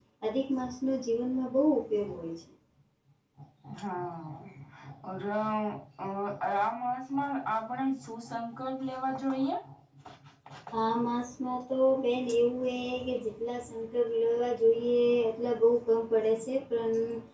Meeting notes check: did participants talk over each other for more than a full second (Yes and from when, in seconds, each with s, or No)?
No